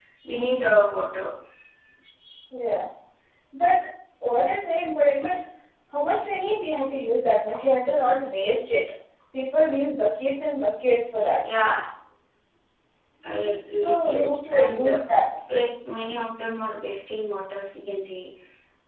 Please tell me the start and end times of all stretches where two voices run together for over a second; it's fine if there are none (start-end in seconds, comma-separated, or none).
13.8-15.0